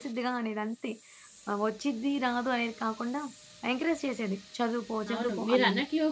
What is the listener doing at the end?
taking over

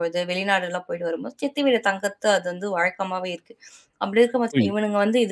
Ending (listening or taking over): listening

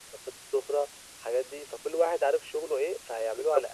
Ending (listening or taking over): taking over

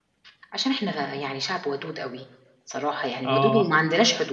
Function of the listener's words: listening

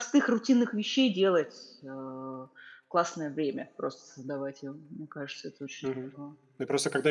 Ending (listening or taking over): taking over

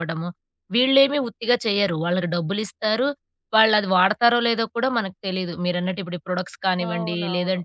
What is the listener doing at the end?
listening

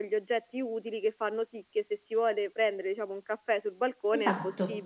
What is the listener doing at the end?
taking over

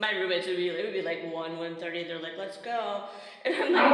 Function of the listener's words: taking over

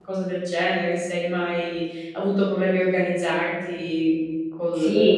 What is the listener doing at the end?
taking over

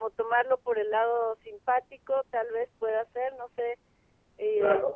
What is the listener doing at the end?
taking over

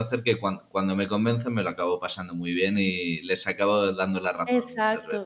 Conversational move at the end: taking over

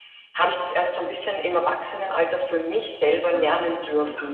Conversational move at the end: taking over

